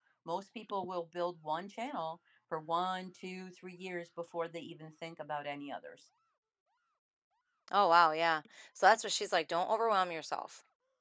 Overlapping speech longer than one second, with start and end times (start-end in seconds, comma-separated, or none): none